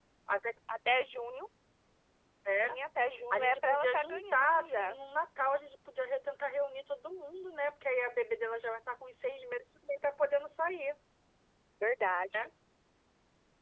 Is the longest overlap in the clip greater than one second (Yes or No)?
Yes